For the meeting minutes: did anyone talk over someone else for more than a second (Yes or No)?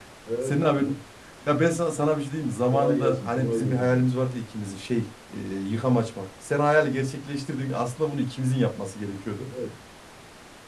Yes